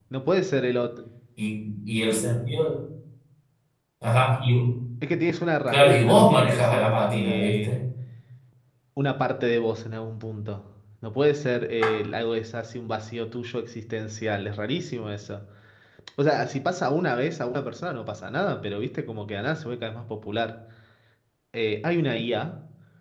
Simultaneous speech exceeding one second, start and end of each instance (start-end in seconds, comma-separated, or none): 5.7-7.8